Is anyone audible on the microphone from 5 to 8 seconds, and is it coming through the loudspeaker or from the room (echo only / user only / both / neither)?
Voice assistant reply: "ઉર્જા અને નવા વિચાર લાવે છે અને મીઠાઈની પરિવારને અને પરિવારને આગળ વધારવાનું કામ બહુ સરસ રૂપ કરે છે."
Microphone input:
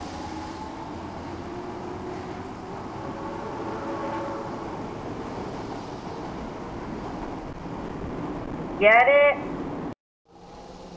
neither